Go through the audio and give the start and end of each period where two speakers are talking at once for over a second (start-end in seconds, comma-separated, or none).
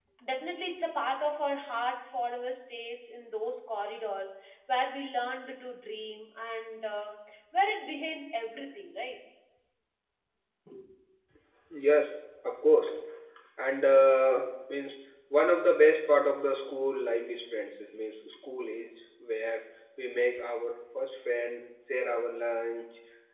none